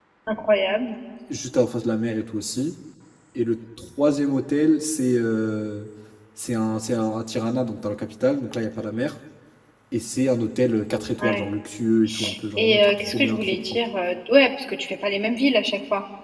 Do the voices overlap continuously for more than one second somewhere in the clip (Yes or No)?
Yes